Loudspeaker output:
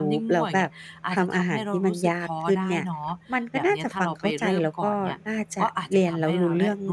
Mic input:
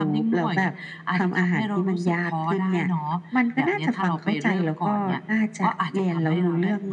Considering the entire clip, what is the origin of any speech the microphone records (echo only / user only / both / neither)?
echo only